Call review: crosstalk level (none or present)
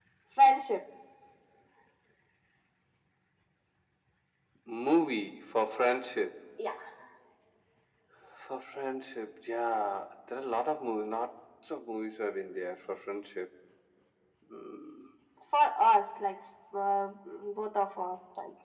none